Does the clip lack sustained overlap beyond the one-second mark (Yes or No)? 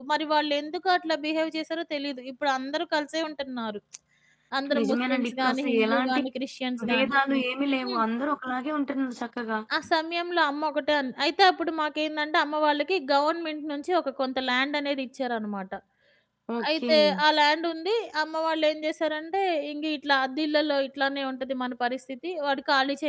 No